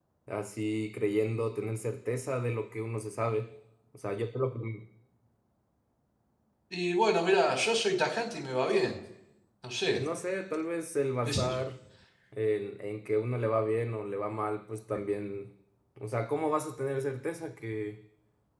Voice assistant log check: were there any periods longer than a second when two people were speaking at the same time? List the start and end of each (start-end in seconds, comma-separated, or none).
none